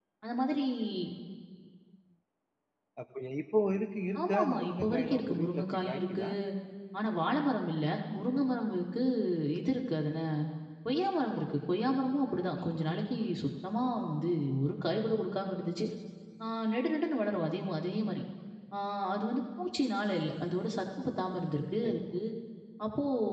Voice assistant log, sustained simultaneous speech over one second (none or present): present